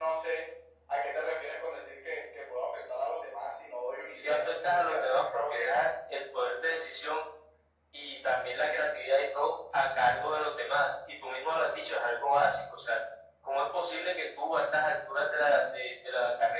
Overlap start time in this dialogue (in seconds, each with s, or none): 4.2 s